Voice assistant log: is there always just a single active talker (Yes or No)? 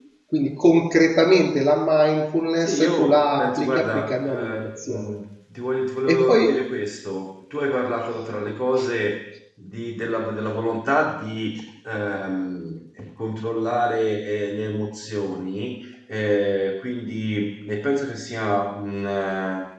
No